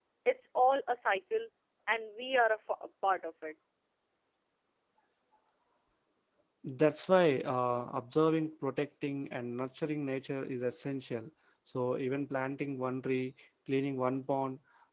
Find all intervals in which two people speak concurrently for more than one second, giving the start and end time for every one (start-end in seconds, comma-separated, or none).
none